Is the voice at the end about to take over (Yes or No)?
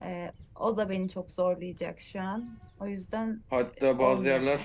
Yes